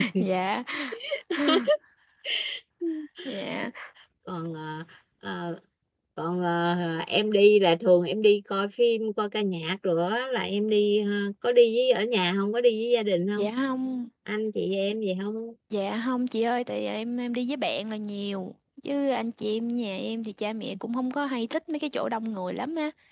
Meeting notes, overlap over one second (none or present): none